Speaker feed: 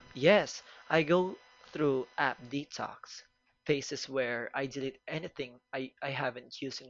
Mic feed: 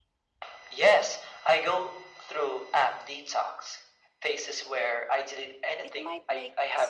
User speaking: Yes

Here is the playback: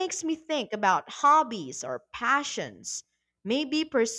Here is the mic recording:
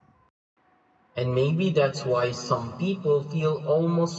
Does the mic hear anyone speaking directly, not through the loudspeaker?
Yes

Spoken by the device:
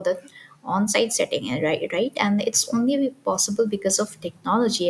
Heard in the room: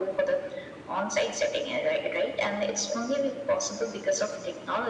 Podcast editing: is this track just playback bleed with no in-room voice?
Yes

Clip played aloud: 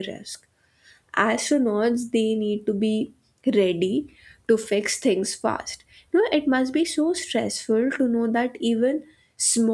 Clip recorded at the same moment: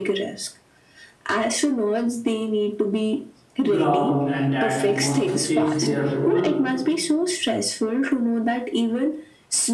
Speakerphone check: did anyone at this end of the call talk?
Yes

